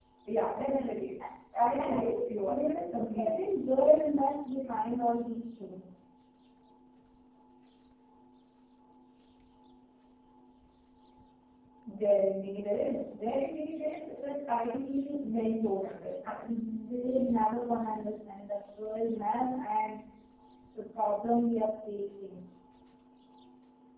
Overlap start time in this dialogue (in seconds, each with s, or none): 1.8 s